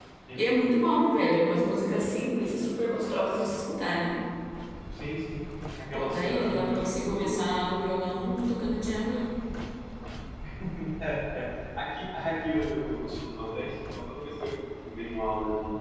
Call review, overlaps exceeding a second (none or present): present